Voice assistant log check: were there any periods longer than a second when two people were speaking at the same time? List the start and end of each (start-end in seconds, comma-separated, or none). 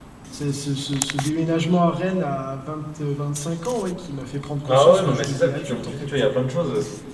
4.7-6.3